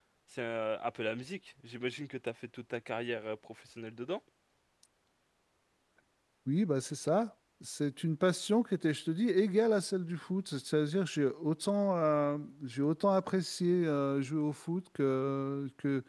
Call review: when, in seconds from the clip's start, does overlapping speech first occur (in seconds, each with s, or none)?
none